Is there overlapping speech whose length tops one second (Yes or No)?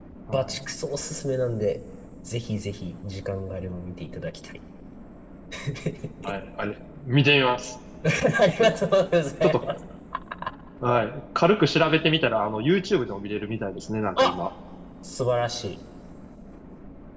No